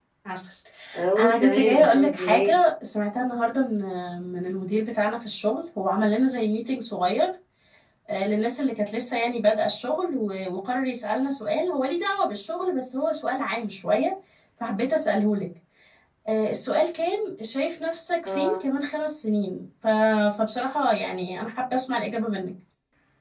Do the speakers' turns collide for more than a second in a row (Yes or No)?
Yes